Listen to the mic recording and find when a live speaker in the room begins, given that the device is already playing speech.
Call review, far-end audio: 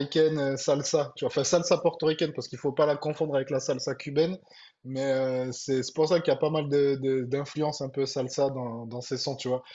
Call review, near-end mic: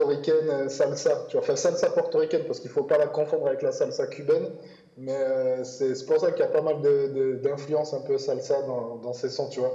none

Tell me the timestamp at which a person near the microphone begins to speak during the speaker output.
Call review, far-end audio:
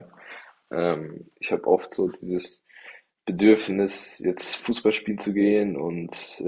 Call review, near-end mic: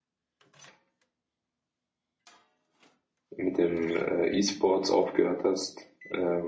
3.4 s

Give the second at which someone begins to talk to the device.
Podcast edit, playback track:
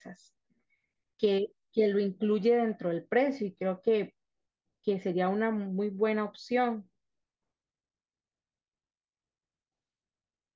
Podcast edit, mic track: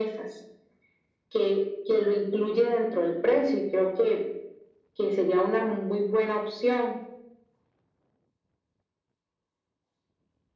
none

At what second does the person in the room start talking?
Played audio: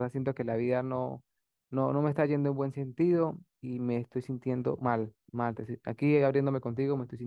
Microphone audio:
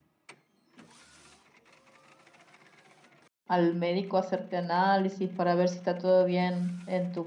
3.5 s

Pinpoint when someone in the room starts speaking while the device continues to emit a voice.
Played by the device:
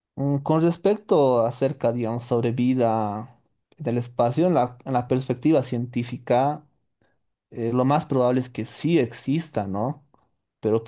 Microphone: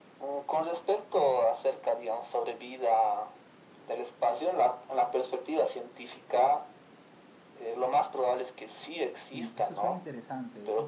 9.3 s

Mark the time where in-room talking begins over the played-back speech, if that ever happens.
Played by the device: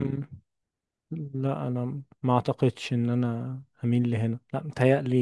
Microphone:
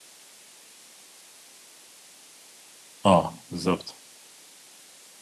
3.1 s

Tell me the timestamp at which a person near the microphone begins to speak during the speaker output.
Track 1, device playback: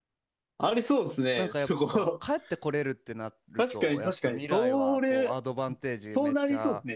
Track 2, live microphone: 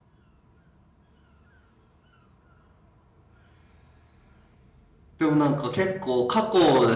5.2 s

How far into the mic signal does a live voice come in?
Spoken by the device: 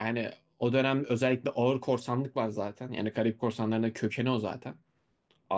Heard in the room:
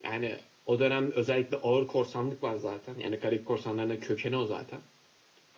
none

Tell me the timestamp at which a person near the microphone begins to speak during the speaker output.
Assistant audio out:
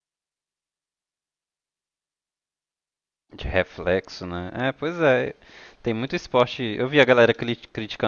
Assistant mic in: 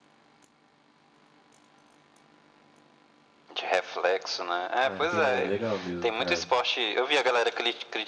4.8 s

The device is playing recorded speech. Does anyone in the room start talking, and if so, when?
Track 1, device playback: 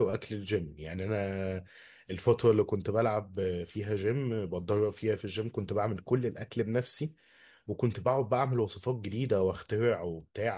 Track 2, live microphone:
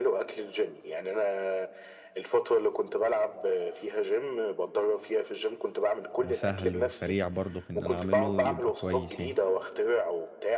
6.2 s

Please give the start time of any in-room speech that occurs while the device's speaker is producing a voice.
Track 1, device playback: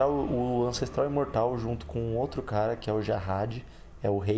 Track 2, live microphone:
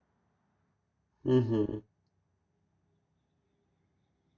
1.2 s

